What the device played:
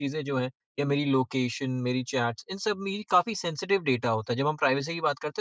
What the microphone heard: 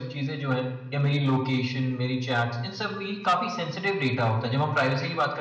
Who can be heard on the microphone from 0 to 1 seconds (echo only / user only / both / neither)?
echo only